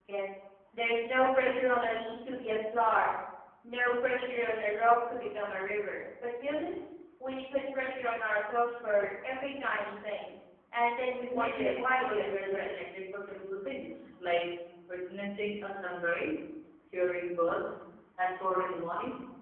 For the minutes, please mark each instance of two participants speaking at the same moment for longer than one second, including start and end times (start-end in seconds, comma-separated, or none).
11.2-12.7